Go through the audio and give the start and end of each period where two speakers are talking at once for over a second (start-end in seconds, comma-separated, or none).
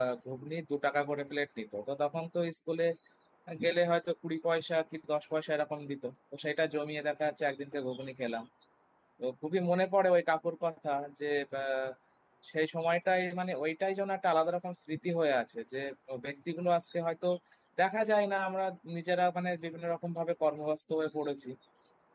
none